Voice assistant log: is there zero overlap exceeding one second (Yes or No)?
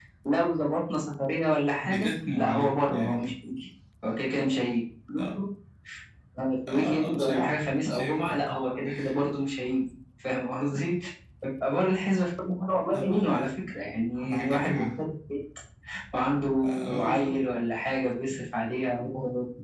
No